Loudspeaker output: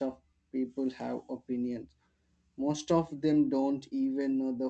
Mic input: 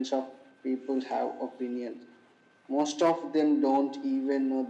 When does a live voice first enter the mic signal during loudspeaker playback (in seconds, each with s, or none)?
none